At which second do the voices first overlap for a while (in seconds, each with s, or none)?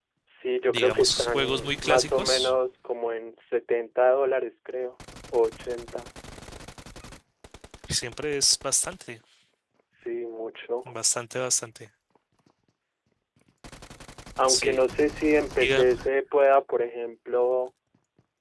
0.7 s